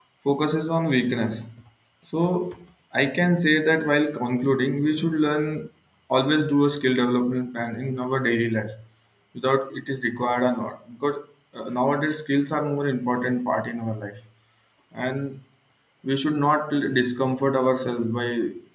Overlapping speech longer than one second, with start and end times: none

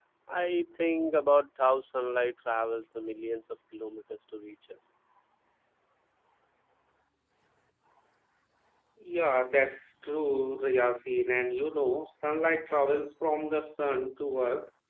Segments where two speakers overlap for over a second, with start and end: none

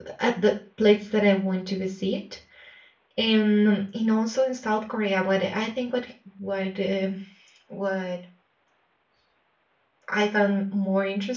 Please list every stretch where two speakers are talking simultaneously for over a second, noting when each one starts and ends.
none

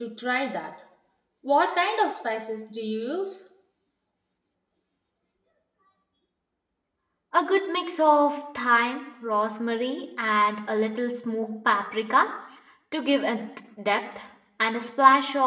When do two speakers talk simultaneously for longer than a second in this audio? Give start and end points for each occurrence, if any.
none

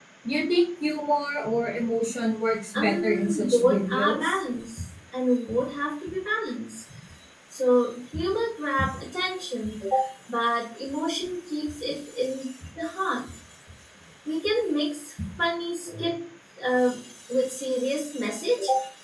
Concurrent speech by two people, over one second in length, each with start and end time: 2.7-4.4

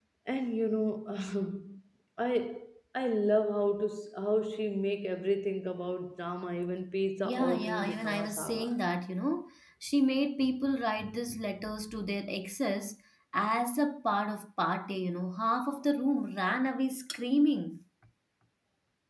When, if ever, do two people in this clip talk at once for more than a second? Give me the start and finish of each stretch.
7.2-8.7

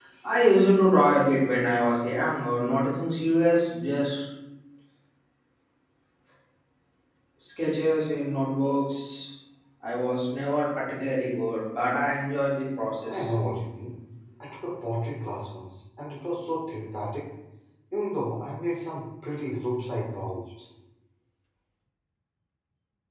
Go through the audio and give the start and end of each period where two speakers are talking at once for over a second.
none

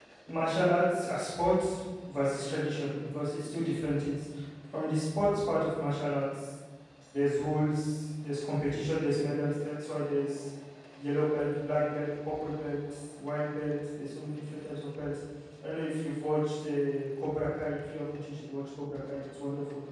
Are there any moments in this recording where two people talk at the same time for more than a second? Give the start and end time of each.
none

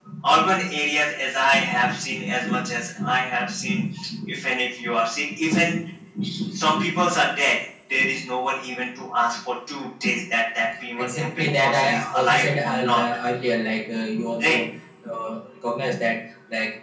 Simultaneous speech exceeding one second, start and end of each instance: 11.0-13.0

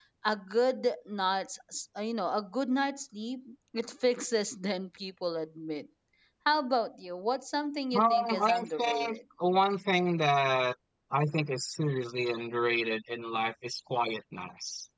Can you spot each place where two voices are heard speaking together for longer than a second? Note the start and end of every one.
8.0-9.2

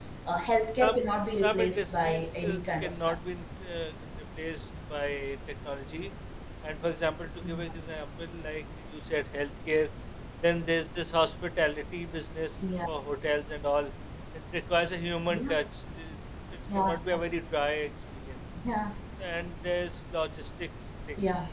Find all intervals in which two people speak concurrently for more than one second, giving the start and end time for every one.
0.8-3.2

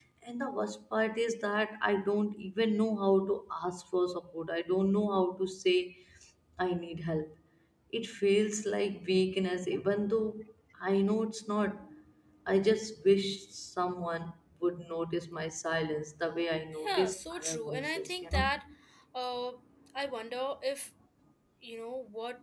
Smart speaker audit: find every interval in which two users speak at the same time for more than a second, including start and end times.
16.9-18.5

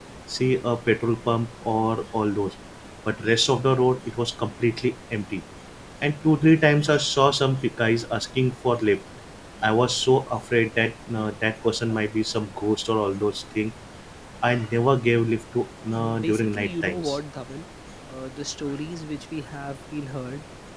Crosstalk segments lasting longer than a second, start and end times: 16.0-17.2

